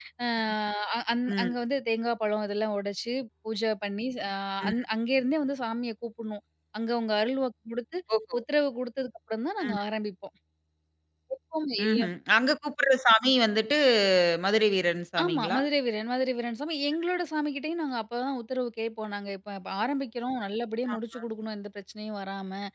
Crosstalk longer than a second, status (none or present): none